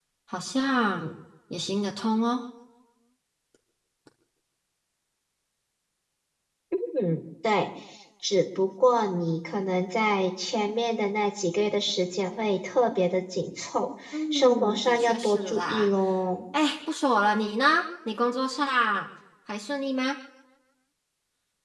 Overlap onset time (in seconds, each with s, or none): 14.1 s